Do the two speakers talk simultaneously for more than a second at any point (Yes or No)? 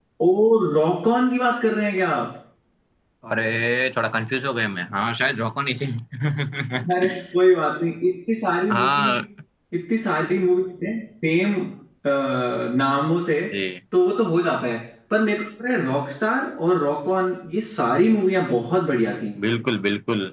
No